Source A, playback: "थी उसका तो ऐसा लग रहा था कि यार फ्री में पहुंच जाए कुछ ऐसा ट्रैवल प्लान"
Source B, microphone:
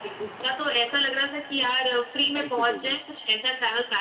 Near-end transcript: फाइव फीट होगी

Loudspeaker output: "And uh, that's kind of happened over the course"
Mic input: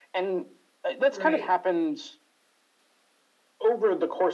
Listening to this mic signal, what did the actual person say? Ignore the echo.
Right.

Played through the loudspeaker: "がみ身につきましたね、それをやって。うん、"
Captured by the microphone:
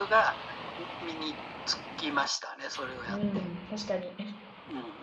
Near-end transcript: うん。確かに。

